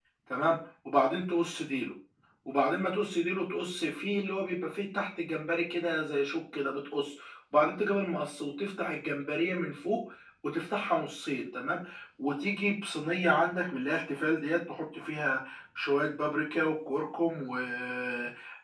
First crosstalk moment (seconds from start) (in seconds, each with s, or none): none